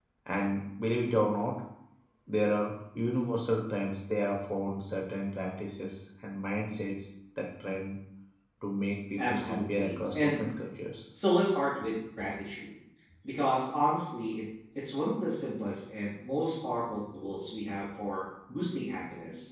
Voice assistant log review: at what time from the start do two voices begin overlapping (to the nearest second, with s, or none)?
9 s